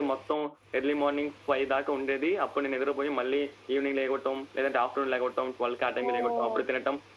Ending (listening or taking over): listening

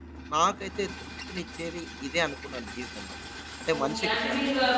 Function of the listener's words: taking over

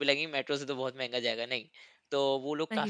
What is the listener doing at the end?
listening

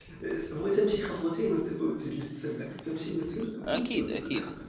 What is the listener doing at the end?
taking over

